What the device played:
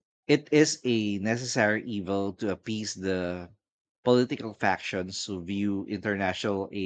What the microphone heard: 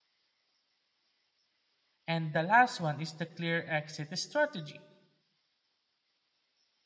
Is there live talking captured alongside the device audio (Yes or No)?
Yes